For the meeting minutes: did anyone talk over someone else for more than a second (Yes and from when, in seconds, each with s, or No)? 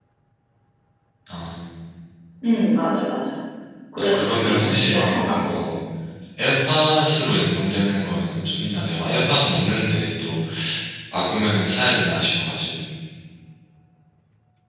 Yes, from 4.0 s